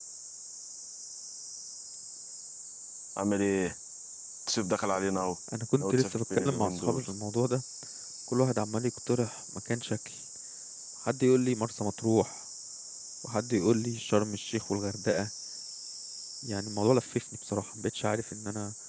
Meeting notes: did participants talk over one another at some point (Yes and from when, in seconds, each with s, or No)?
Yes, from 5.8 s